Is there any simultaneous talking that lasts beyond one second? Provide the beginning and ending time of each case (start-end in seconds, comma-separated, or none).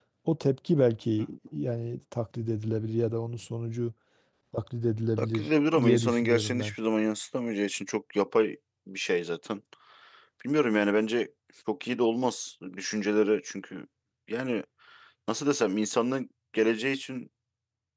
5.2-6.8